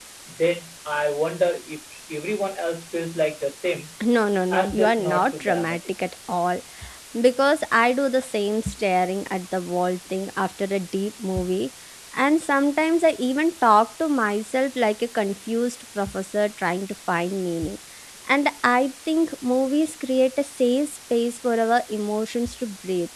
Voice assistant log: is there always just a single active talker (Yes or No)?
No